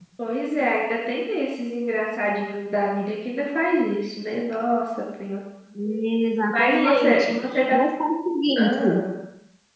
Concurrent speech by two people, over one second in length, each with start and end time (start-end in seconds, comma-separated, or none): 6.5-7.8